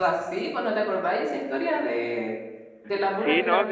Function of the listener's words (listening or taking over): taking over